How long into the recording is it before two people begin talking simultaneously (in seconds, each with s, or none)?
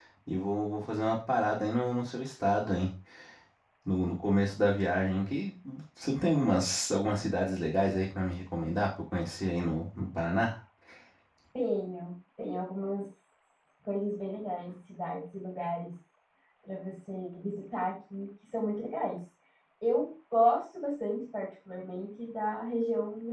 none